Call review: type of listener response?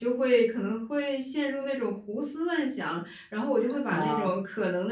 listening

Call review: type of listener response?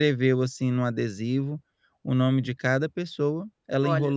listening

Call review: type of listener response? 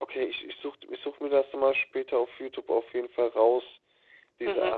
taking over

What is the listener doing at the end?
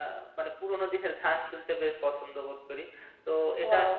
listening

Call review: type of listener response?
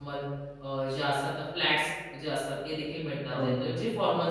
listening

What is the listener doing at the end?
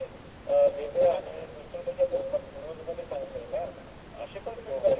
listening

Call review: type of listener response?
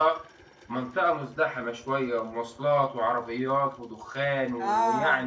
taking over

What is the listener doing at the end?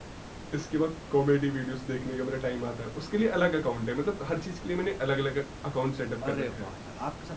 taking over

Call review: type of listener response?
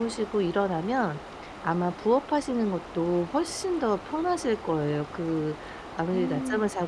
listening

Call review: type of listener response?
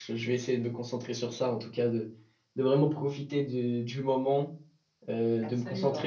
listening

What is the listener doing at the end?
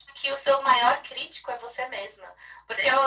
listening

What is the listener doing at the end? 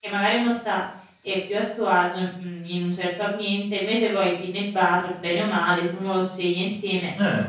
taking over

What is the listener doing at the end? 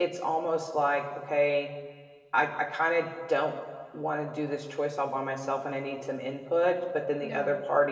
listening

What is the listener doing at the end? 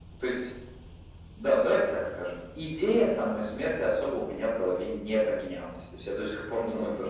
listening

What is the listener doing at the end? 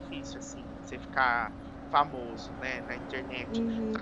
taking over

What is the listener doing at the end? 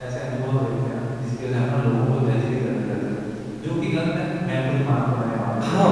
taking over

